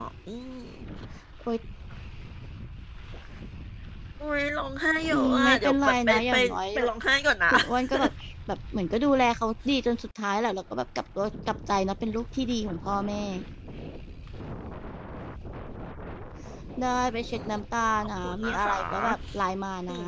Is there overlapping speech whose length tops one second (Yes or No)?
Yes